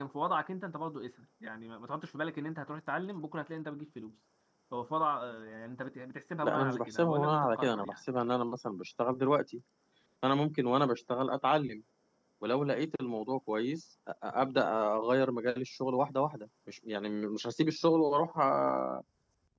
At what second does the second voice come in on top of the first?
6.4 s

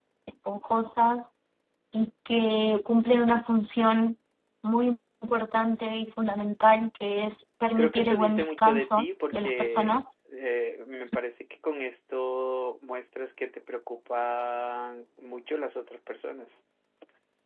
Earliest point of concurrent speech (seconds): 7.8 s

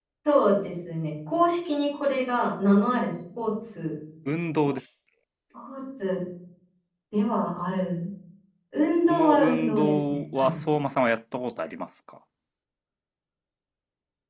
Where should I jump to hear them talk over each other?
9.1 s

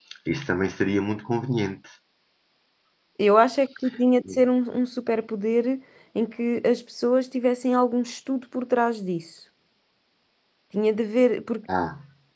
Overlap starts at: none

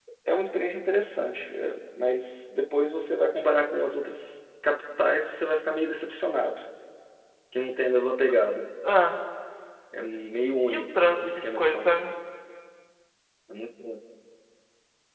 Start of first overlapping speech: 10.6 s

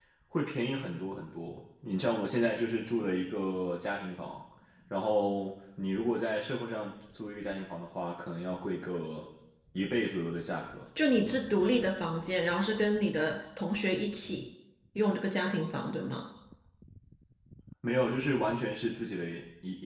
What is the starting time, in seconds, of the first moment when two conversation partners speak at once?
none

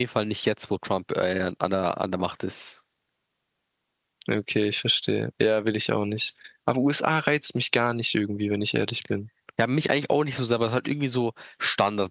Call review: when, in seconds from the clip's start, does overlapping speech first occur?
none

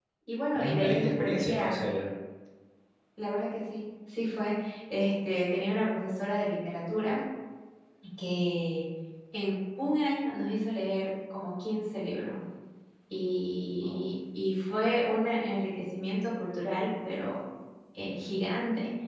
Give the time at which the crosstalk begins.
0.5 s

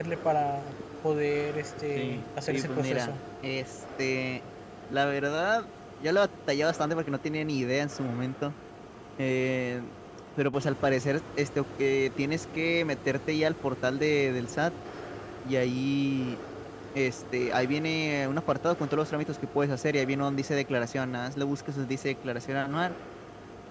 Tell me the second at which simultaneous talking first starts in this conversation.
2.0 s

